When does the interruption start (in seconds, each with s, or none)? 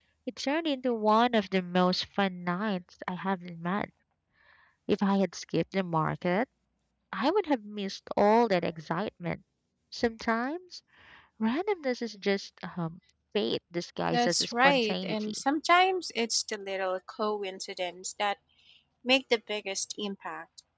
14.1 s